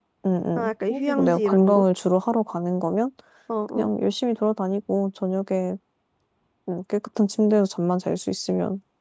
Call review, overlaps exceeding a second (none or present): present